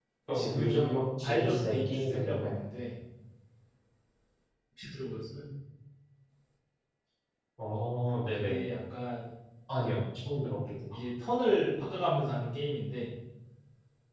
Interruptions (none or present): present